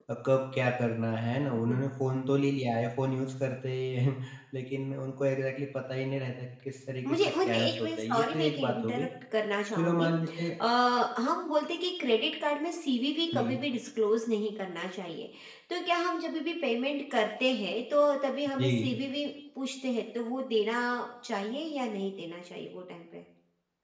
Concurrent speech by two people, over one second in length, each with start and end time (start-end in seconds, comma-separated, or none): 7.1-9.1